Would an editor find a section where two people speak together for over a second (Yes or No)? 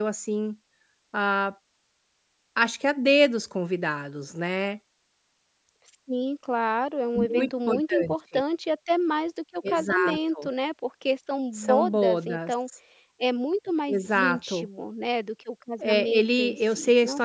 Yes